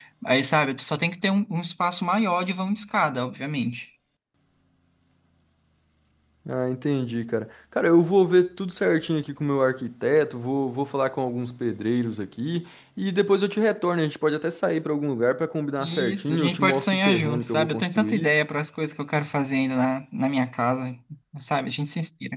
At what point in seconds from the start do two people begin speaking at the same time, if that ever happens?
15.8 s

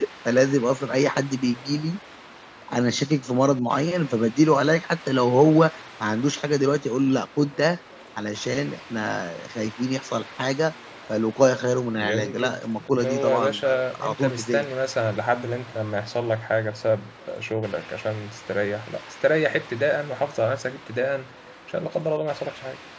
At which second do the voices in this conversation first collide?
12.0 s

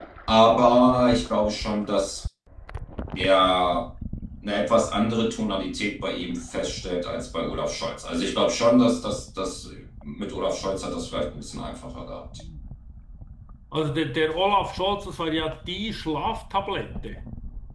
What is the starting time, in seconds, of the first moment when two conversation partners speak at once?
none

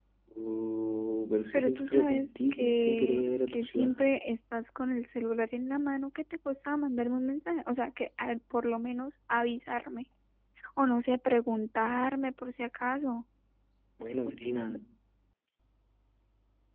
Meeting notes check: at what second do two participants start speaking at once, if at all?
1.5 s

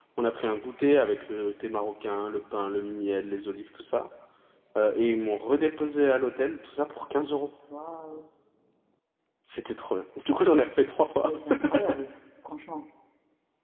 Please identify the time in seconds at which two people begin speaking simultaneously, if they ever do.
none

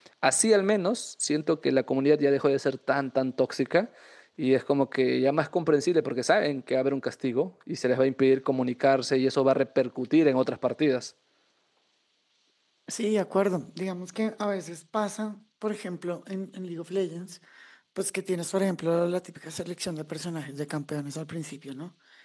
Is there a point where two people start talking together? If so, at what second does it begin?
none

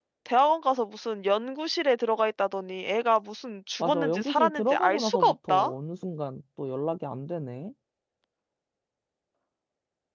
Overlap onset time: 3.8 s

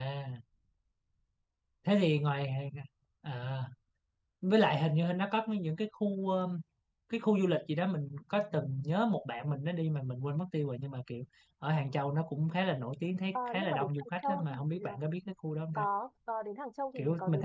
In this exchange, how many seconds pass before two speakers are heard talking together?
13.3 s

